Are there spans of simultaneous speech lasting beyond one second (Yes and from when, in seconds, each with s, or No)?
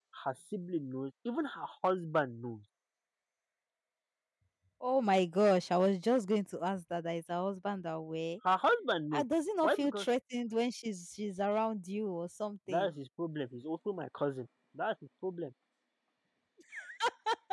No